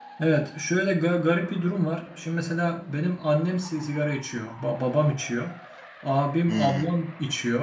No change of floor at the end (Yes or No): Yes